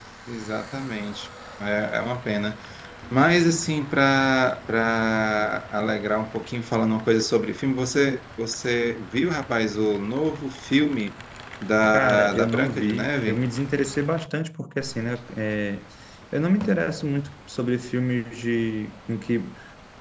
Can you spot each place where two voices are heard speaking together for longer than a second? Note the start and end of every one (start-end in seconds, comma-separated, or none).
11.9-13.4